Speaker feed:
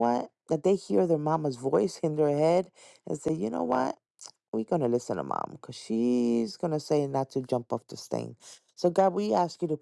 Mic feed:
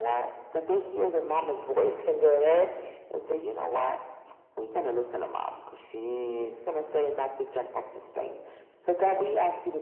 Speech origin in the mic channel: echo only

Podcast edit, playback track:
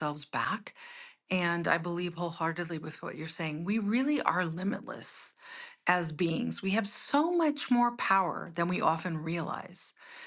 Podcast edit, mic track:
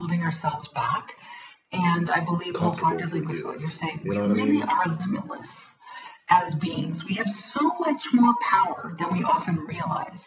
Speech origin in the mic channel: both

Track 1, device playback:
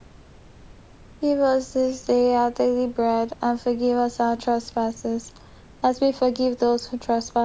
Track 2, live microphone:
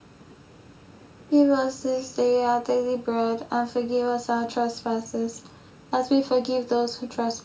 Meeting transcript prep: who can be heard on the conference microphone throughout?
echo only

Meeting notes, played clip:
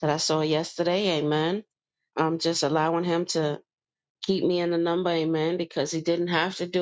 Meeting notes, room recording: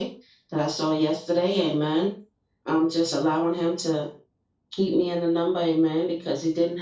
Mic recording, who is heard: echo only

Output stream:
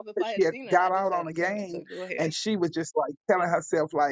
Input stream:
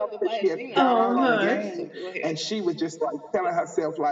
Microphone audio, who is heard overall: both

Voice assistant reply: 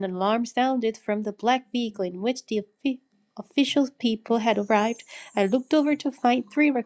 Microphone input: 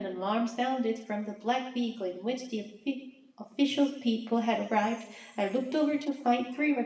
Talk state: echo only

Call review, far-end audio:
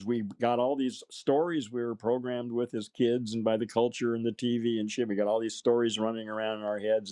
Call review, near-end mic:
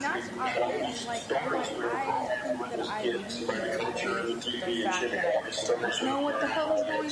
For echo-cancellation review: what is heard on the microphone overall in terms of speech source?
both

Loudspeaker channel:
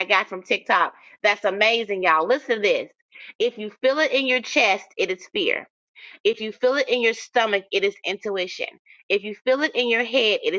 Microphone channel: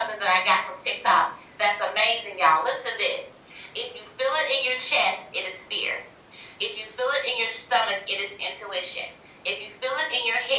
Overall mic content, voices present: echo only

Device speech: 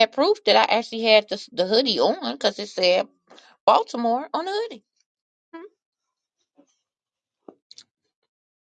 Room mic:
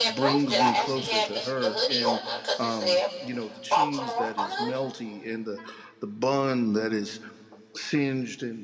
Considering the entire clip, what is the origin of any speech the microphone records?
both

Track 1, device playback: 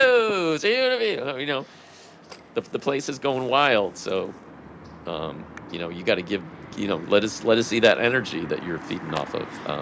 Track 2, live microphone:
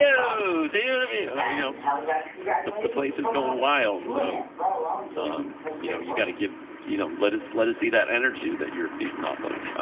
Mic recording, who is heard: both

